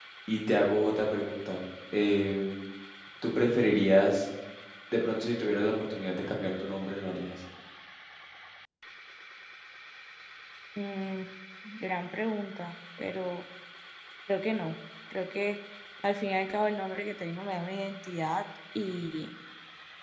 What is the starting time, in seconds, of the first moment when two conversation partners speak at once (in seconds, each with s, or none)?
none